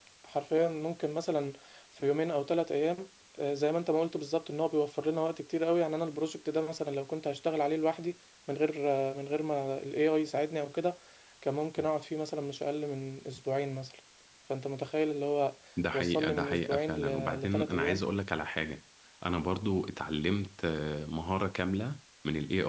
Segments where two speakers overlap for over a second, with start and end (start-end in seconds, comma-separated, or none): 15.9-18.0